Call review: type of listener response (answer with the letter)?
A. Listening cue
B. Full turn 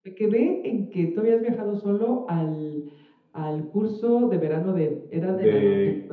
B